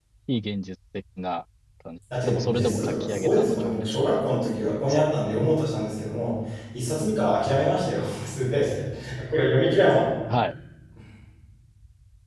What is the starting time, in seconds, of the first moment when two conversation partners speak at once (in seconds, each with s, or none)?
2.1 s